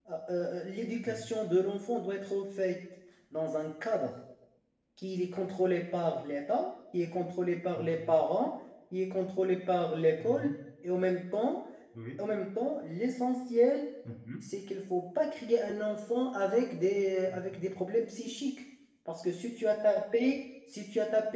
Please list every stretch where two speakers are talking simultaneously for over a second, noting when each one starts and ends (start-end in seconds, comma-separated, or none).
none